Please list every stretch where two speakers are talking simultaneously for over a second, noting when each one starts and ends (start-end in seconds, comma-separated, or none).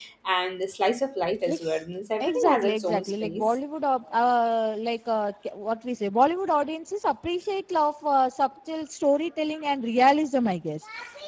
2.2-3.5